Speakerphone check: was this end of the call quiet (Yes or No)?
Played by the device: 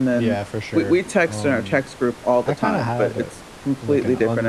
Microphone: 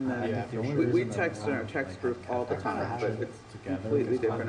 No